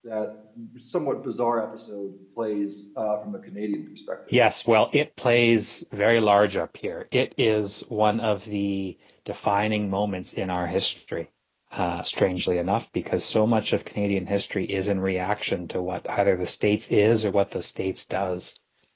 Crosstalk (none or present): none